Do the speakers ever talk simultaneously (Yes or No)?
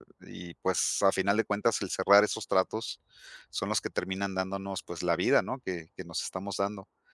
No